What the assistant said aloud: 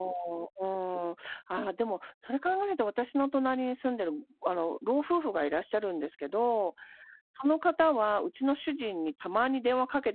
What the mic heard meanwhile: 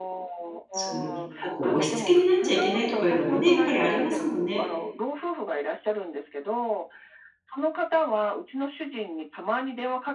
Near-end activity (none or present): present